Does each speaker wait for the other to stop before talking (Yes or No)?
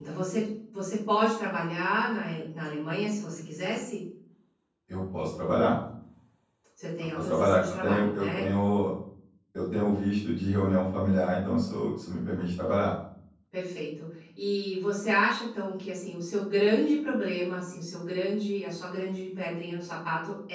No